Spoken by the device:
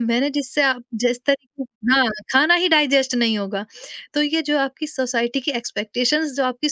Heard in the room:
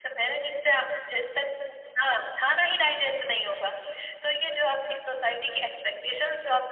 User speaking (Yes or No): No